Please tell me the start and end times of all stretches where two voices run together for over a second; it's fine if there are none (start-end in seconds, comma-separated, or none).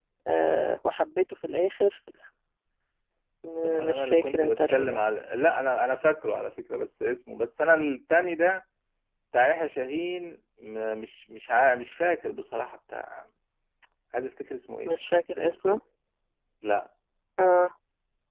3.6-5.0